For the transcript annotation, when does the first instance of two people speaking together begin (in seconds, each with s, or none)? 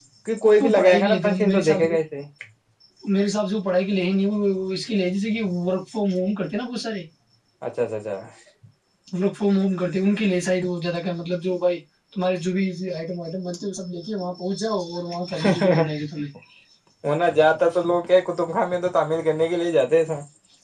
0.6 s